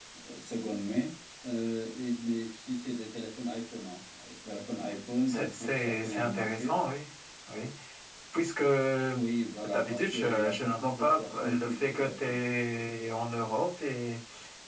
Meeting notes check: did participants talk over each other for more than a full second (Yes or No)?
Yes